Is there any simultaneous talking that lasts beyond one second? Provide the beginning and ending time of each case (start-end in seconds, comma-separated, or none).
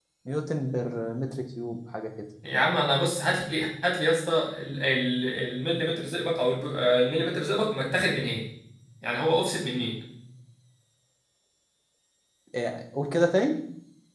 none